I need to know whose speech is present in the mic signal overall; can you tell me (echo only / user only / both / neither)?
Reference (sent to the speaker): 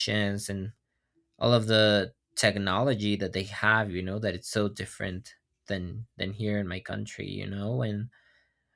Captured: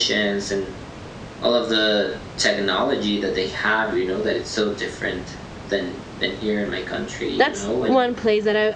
both